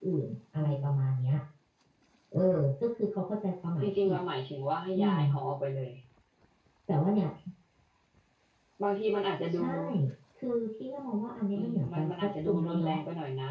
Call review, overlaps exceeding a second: present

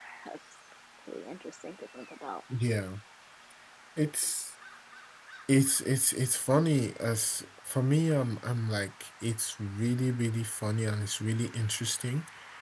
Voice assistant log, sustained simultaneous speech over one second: none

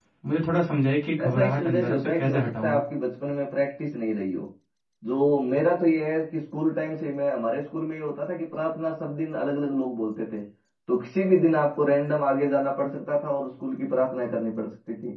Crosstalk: present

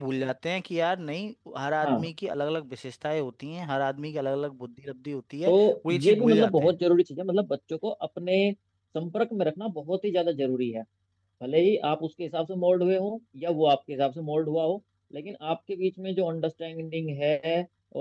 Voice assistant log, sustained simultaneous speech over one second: present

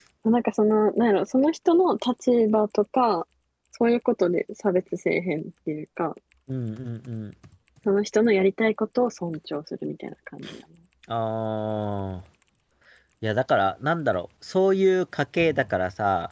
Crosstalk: none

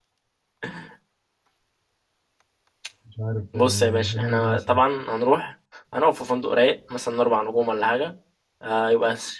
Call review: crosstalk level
present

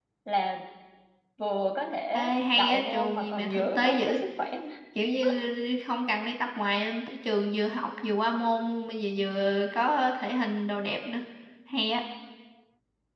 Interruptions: present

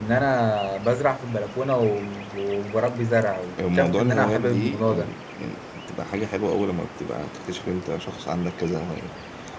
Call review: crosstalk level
present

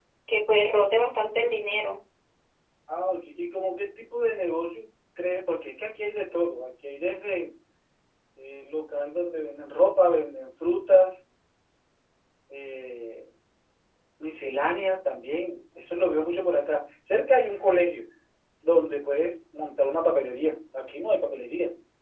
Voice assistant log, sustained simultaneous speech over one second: none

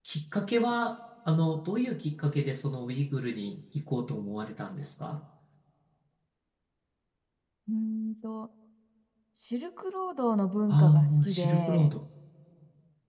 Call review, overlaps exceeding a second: present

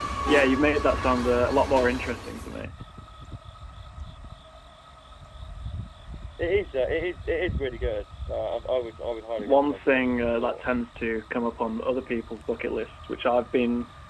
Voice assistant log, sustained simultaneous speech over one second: present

